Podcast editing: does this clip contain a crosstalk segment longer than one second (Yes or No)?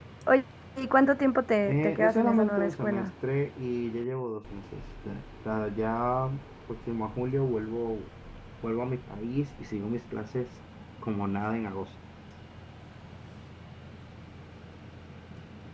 Yes